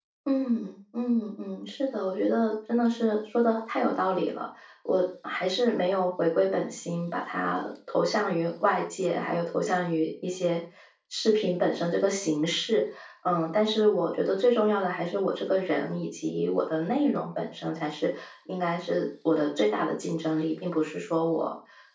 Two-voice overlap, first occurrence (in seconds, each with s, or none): none